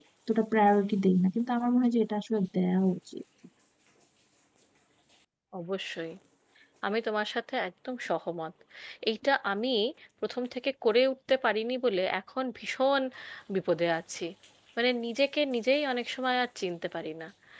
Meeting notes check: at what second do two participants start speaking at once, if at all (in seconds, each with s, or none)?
none